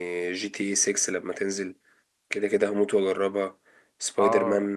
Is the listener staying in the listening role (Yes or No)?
No